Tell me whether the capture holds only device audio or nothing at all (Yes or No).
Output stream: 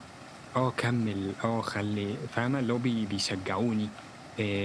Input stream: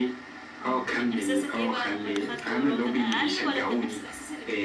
No